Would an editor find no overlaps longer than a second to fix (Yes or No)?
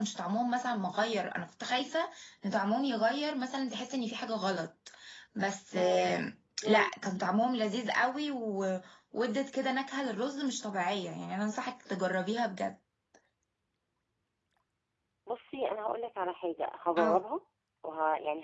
Yes